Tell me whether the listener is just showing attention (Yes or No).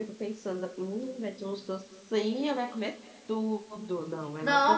No